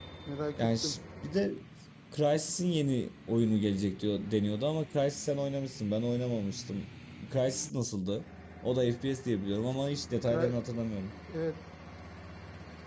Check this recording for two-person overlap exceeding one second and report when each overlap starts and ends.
none

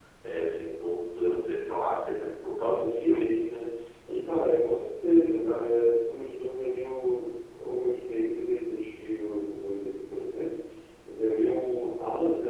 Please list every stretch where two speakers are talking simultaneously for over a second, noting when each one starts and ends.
none

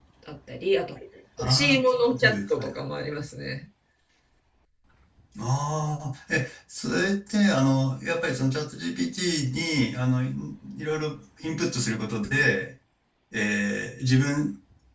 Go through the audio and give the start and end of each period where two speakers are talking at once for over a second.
1.4-2.7

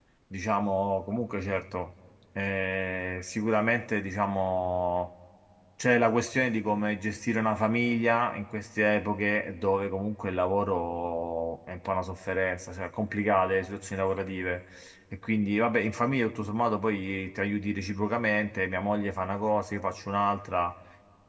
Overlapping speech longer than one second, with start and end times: none

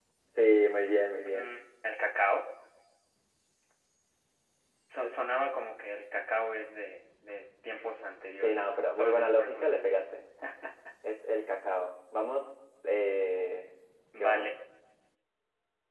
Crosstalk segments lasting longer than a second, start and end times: 8.3-10.0

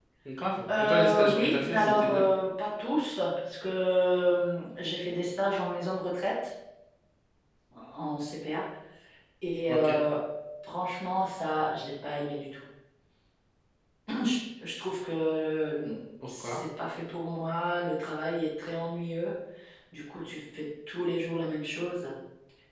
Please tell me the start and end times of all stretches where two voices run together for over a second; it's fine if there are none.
0.8-2.2

